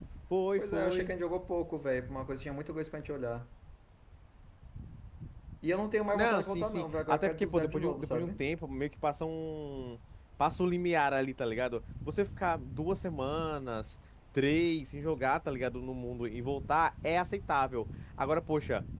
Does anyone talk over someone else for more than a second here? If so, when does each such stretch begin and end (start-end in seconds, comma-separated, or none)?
6.1-8.4